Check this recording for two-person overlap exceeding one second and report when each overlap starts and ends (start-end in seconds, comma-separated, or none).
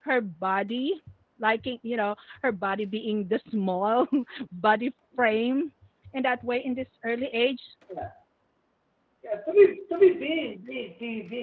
none